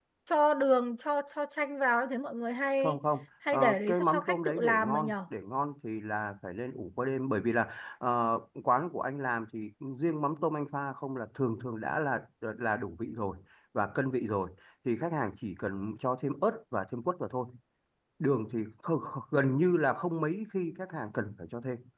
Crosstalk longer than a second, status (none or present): present